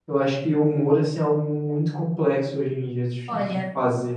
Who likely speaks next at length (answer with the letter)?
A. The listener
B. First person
A